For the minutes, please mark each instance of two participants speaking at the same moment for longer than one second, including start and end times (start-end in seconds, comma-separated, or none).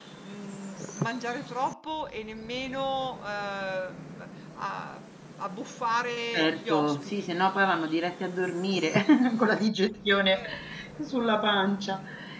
6.3-7.6